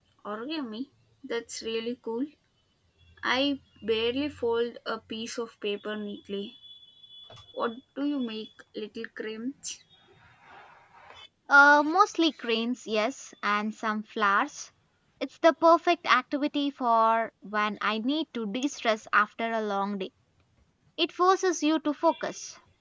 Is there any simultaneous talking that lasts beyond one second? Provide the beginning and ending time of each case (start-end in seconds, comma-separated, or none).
none